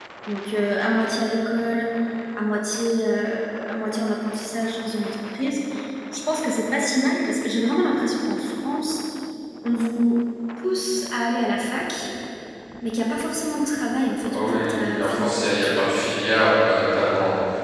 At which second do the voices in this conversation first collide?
14.2 s

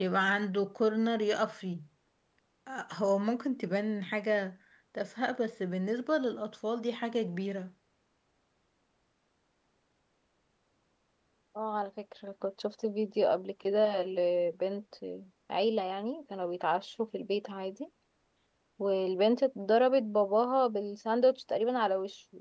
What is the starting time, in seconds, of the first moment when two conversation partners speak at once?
none

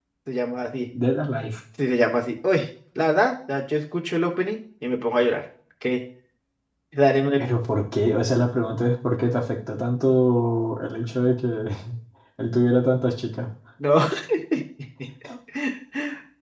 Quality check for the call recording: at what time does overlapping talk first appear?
none

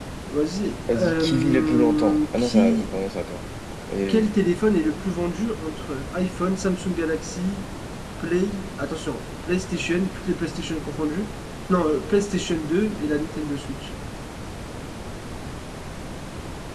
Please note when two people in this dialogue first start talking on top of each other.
0.9 s

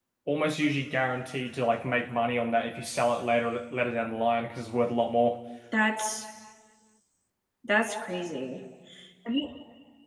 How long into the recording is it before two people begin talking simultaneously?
none

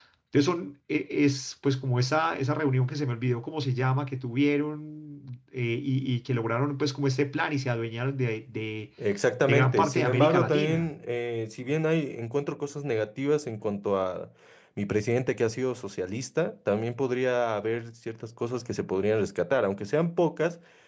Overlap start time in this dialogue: 9.5 s

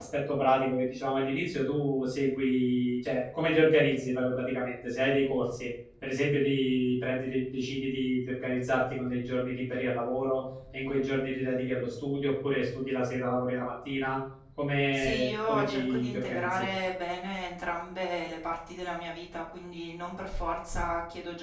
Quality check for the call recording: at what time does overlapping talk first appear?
14.9 s

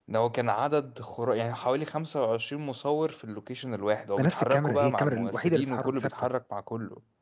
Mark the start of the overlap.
4.2 s

